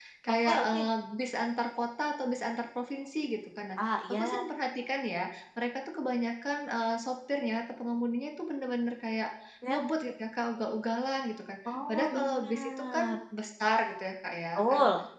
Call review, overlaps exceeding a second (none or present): present